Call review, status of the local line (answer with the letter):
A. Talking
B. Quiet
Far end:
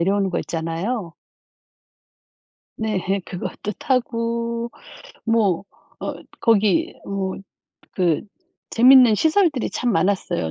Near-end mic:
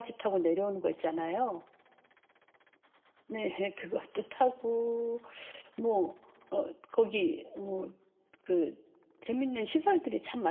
B